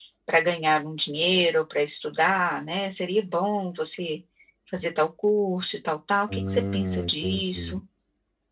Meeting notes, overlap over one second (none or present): present